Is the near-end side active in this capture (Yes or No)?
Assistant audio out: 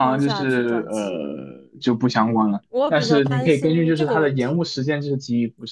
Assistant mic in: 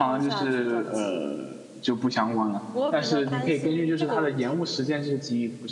No